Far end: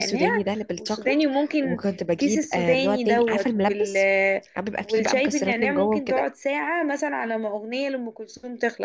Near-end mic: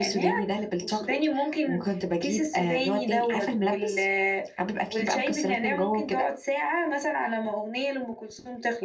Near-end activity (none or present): none